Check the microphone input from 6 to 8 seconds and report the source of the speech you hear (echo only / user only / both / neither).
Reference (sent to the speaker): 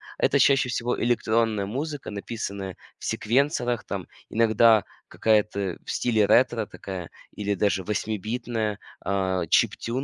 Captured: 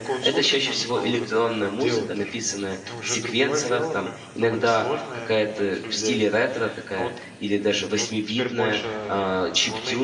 both